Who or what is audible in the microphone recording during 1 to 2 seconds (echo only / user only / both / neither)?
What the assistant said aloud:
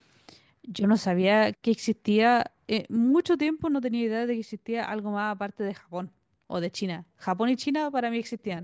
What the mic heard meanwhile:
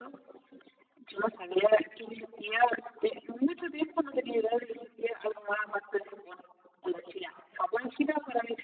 echo only